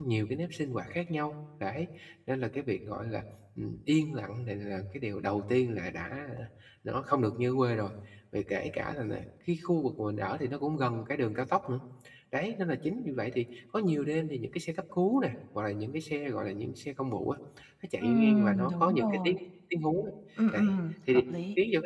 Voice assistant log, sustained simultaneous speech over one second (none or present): present